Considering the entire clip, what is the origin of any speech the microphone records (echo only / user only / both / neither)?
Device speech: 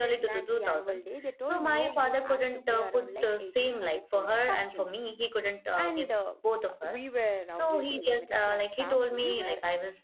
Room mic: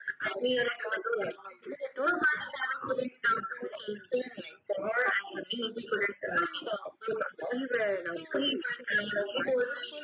both